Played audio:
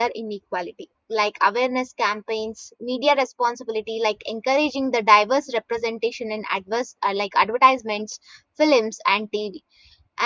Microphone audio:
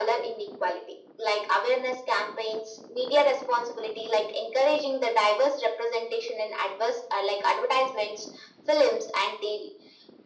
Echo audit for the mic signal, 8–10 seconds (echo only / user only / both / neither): echo only